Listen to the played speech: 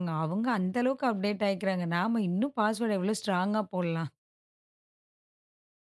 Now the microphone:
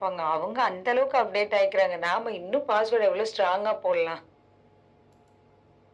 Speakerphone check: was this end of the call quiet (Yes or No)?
Yes